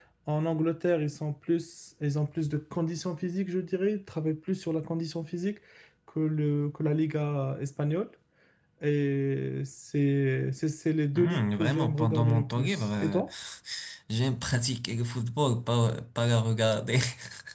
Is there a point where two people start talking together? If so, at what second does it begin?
11.2 s

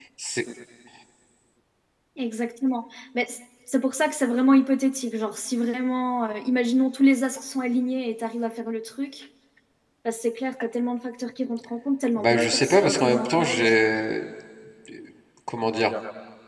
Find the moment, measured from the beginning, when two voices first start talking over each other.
12.1 s

